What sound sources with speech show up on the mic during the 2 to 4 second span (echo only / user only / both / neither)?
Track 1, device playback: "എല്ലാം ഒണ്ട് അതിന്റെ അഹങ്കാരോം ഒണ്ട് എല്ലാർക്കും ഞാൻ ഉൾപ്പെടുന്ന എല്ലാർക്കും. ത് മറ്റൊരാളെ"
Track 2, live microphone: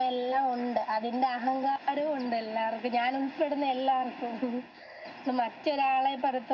echo only